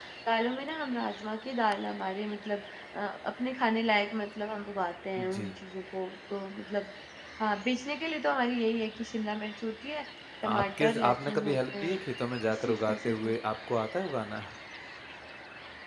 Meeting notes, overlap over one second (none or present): present